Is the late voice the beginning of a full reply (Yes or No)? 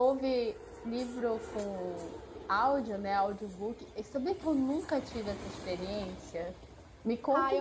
Yes